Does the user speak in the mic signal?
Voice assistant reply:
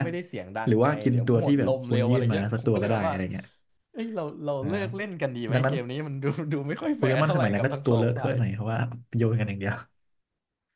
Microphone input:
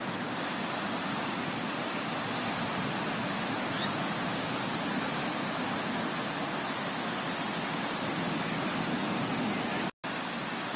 No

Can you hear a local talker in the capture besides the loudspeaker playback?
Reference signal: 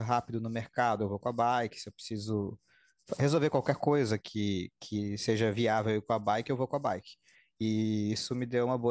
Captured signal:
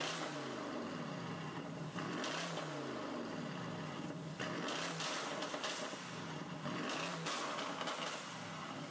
No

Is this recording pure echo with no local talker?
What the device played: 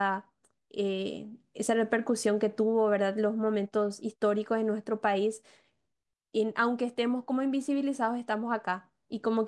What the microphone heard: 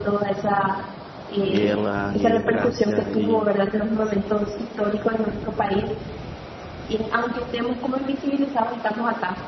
No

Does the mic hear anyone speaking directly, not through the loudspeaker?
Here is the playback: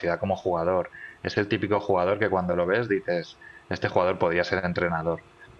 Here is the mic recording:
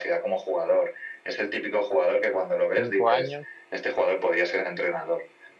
Yes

